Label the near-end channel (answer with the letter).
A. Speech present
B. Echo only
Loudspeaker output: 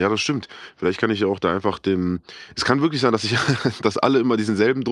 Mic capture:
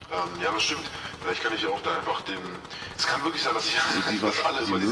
A